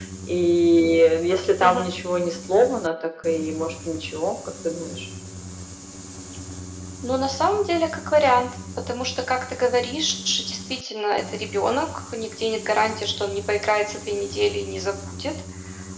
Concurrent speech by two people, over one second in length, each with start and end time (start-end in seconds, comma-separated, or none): none